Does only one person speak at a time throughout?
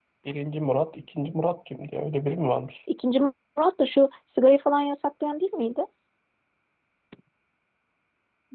Yes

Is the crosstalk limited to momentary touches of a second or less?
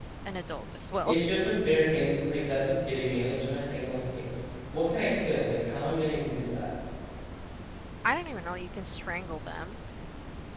Yes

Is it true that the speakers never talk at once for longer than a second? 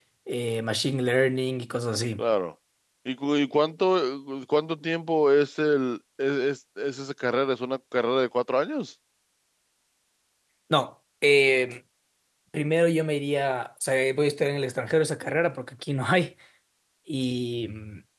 Yes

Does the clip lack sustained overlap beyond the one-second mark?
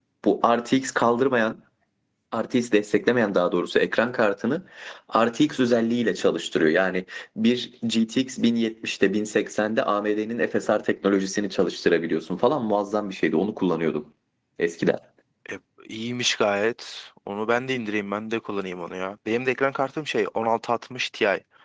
Yes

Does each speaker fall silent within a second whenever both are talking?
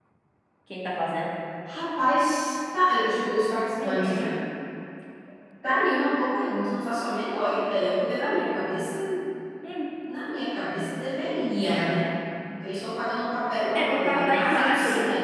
No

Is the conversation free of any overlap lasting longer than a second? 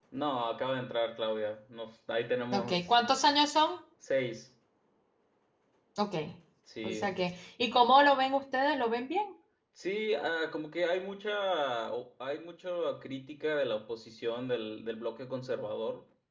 Yes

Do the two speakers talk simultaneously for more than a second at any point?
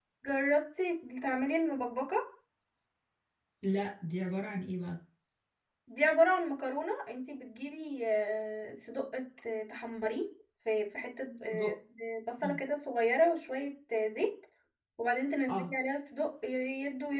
No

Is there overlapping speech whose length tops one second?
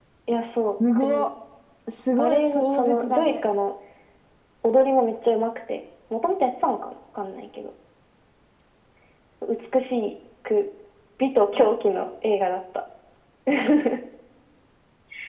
Yes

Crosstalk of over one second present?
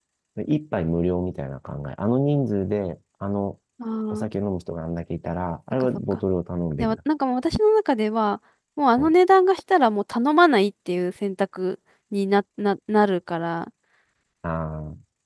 No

